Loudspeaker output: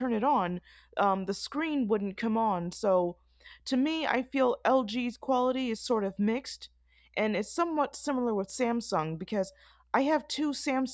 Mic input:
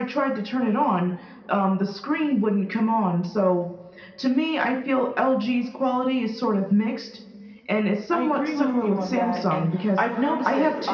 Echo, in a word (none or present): present